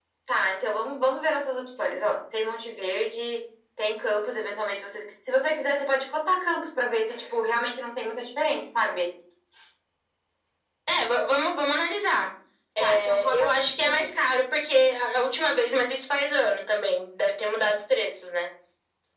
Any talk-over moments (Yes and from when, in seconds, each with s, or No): Yes, from 12.8 s